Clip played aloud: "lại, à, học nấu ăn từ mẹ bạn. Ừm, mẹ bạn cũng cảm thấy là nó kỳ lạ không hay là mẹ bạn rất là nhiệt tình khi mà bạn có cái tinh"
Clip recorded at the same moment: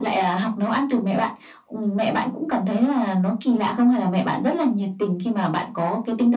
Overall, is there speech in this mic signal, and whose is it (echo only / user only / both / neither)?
echo only